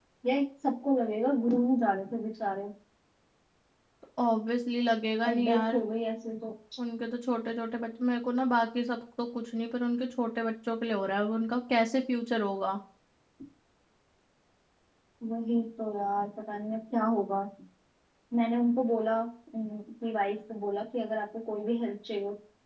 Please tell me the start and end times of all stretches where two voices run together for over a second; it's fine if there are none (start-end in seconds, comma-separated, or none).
none